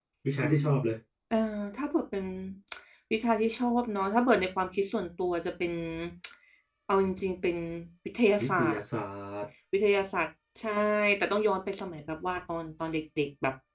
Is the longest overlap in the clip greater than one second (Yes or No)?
No